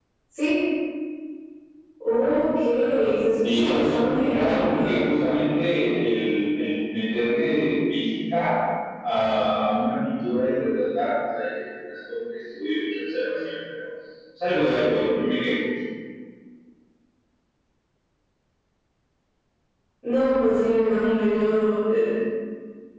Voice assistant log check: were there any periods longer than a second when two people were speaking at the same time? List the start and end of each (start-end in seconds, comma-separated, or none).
3.4-5.2